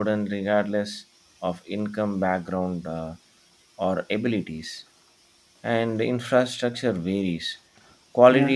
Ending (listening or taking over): listening